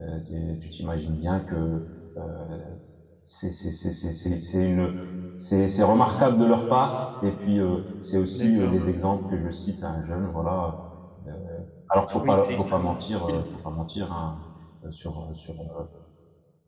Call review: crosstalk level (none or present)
present